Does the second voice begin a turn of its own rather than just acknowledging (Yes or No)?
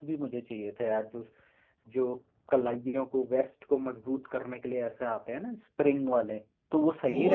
Yes